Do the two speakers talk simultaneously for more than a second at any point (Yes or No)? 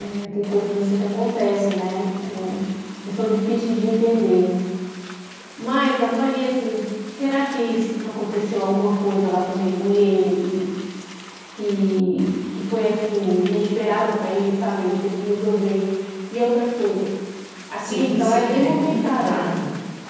Yes